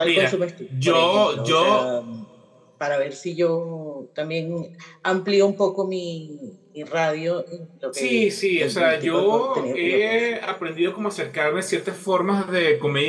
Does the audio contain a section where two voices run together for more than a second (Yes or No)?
Yes